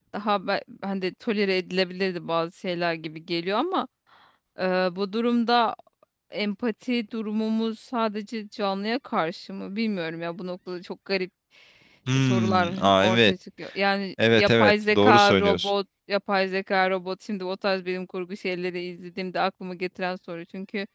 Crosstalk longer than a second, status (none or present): present